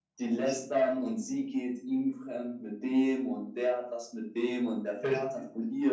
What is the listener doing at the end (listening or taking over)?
listening